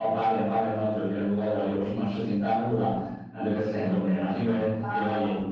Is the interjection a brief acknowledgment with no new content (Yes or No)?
Yes